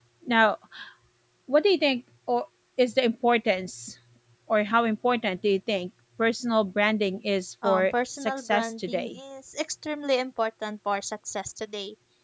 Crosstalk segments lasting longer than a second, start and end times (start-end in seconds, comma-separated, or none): 7.6-9.2